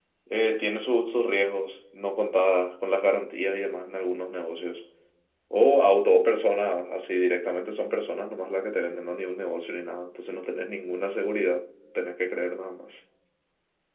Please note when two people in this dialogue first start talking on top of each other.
none

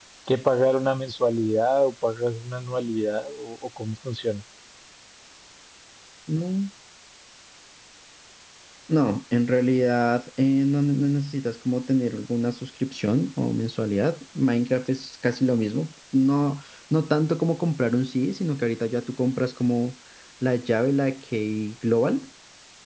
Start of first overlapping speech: none

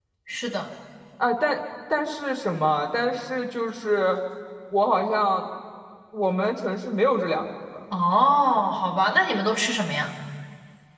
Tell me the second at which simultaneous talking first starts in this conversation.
none

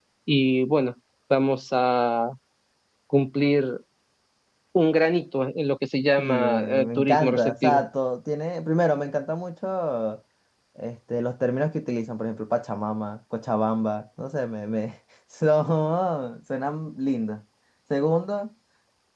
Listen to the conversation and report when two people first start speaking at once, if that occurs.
6.2 s

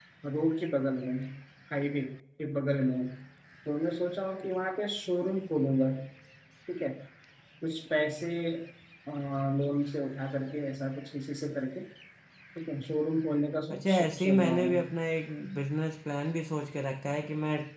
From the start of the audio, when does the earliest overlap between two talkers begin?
13.7 s

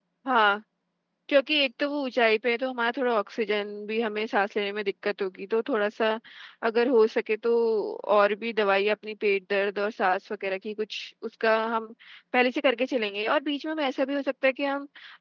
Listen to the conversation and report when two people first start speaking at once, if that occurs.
none

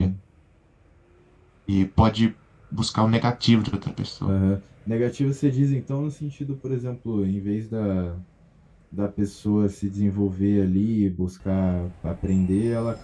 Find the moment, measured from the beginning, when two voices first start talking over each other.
none

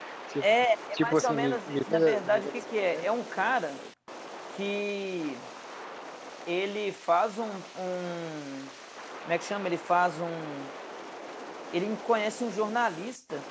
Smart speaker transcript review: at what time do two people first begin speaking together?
1.0 s

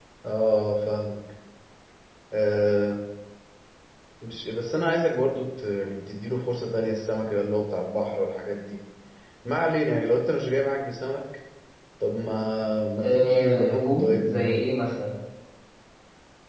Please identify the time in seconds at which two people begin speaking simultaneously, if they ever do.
13.0 s

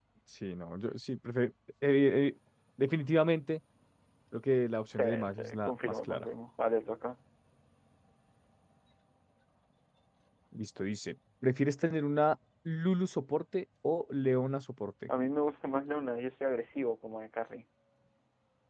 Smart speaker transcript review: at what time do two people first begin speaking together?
5.0 s

